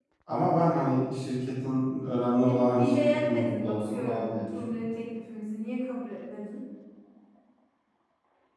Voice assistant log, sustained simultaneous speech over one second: present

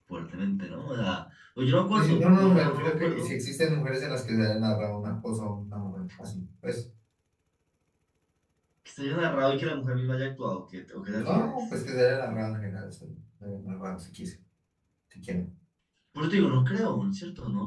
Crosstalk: present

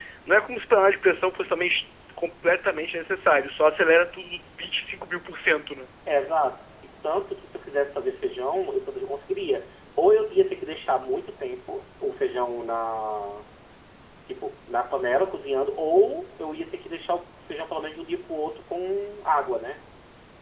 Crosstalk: none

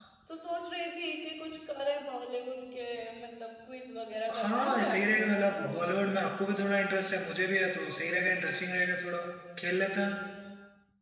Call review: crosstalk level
present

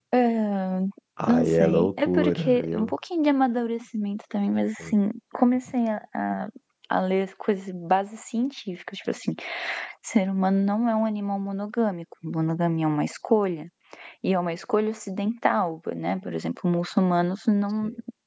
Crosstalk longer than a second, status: present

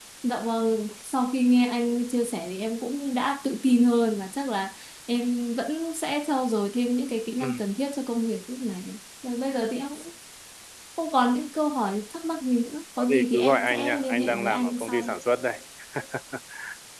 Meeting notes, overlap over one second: present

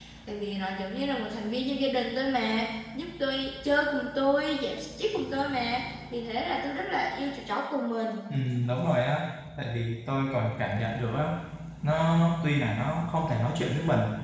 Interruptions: none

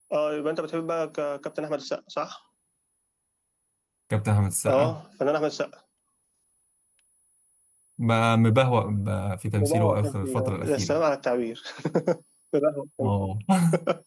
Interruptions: present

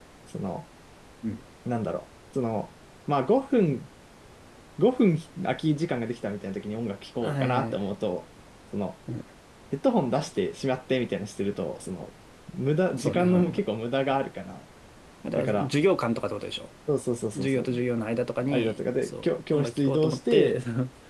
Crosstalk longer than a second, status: present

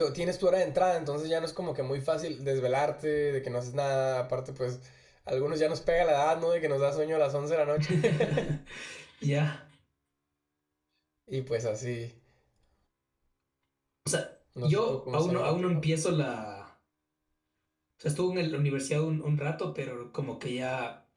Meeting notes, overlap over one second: present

